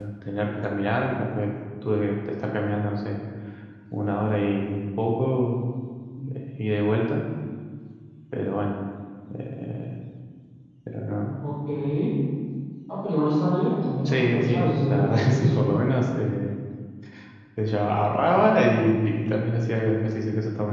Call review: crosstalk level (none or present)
present